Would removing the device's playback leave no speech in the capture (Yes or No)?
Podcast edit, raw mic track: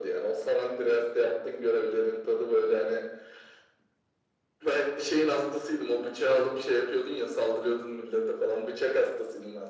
Yes